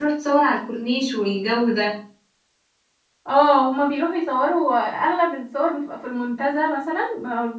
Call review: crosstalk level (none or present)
none